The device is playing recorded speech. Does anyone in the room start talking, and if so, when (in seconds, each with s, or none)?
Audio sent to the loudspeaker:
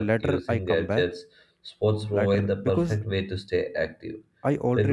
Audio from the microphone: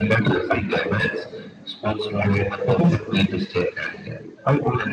none